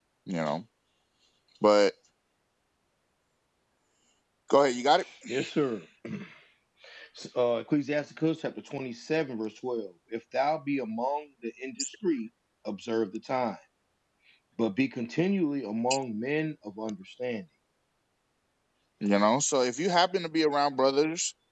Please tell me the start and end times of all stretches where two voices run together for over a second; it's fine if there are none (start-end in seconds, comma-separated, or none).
none